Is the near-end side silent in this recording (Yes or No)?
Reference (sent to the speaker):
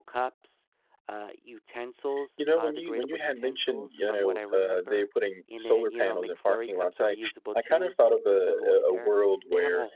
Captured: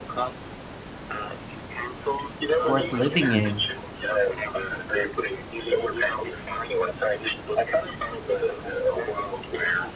No